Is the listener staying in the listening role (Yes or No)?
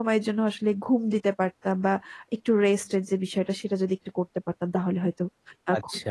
No